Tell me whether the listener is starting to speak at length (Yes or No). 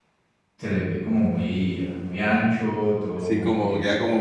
Yes